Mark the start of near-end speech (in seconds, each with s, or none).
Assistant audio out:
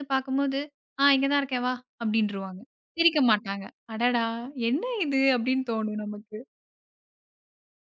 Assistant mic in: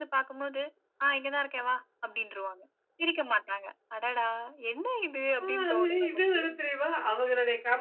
5.5 s